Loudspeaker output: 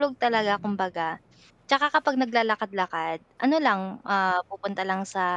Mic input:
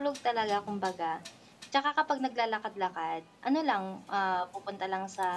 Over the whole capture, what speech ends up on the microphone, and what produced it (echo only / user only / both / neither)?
echo only